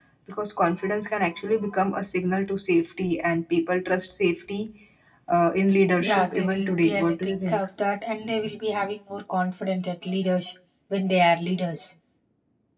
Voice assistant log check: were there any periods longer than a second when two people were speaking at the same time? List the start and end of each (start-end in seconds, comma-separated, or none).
6.0-7.6